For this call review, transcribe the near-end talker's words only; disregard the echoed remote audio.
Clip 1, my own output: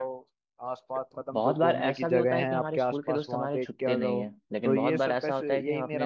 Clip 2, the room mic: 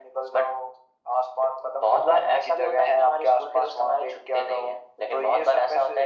none

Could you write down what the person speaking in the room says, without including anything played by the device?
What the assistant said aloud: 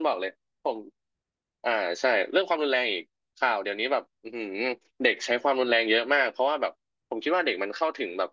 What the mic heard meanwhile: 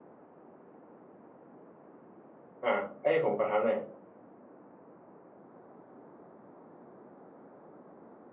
อ่าเอ้ยผมขอถามหน่อย

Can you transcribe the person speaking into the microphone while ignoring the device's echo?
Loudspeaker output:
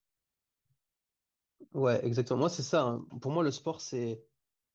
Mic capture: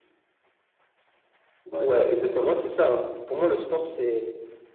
ouais, je vois bien.

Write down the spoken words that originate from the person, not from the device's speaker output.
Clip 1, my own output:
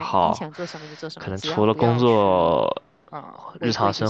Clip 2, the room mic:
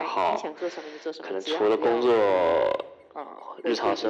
none

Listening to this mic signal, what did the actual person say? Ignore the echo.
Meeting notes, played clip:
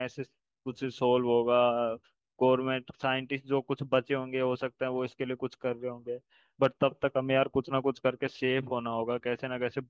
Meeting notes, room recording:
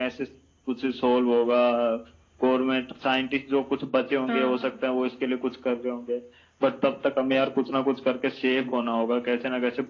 हाँ

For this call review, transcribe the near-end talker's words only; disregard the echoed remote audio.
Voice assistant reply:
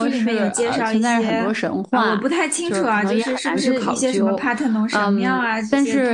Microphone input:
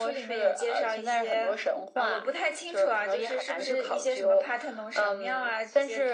none

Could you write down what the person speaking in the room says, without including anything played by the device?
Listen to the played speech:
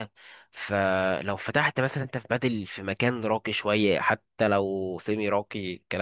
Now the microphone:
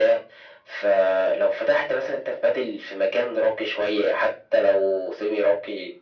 none

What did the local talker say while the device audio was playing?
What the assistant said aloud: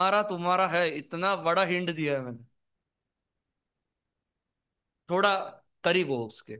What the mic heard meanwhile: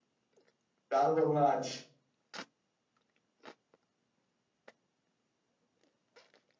सोचना आज

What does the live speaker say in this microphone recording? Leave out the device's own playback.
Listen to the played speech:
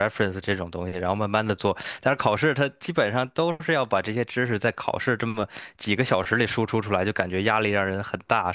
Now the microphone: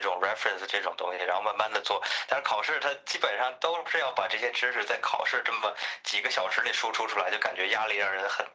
none

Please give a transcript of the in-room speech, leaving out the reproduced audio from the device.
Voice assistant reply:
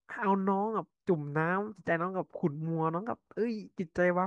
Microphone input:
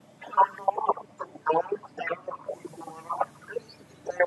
none

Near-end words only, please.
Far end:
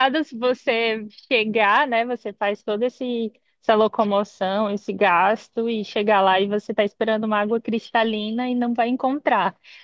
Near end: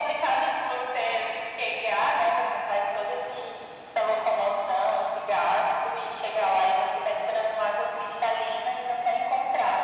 none

